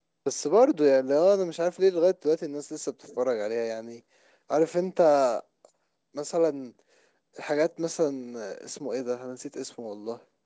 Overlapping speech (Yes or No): No